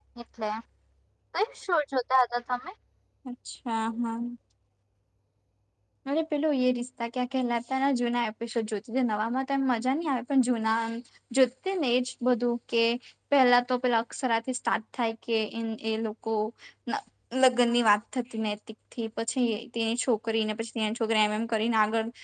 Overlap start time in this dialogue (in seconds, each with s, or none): none